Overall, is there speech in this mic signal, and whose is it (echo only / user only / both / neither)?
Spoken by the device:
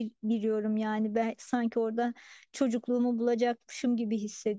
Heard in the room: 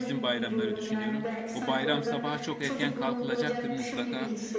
both